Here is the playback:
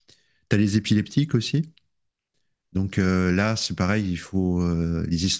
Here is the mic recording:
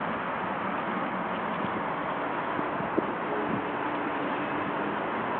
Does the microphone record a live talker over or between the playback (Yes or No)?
No